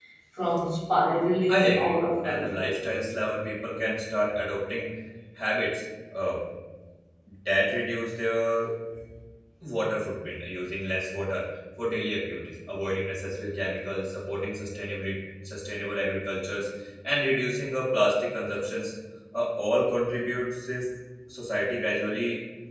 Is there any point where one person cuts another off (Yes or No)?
Yes